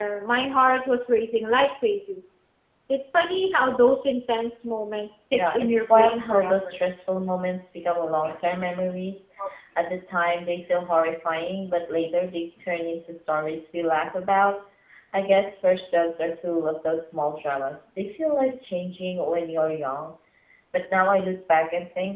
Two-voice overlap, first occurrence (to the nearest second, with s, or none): 5 s